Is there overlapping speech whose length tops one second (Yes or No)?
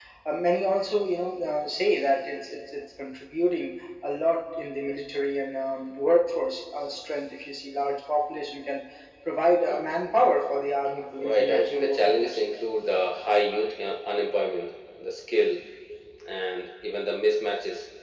Yes